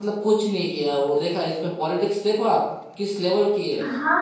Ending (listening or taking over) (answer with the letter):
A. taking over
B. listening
A